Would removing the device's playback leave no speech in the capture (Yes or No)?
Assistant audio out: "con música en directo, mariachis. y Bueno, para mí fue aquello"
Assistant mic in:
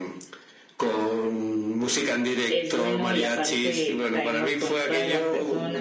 No